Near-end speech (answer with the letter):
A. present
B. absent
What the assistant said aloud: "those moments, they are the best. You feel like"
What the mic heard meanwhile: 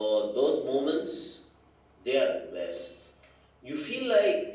B